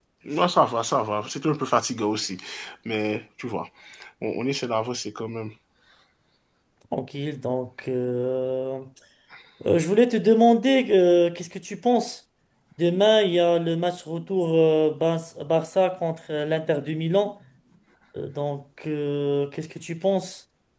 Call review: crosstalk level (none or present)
none